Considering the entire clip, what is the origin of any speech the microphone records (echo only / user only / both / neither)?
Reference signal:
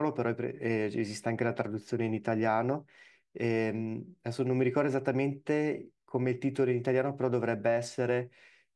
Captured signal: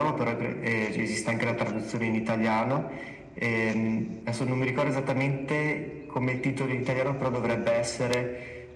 echo only